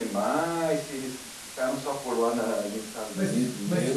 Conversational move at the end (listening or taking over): taking over